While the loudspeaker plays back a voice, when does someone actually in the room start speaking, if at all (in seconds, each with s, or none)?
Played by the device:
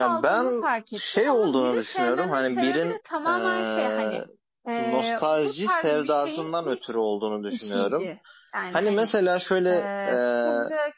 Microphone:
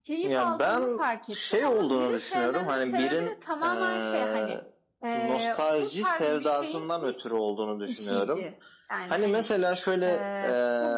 none